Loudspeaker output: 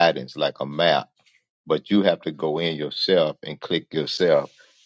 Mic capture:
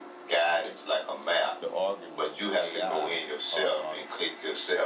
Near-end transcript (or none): to argue with AI, uh, uh,